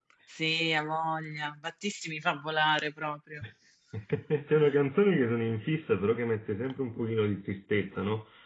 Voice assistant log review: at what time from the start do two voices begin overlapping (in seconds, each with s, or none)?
none